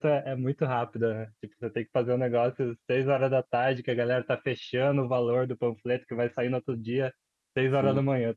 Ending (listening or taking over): listening